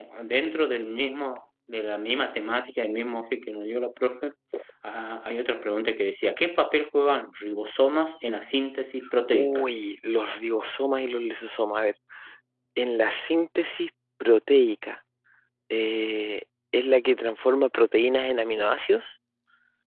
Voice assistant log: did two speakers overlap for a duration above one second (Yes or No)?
No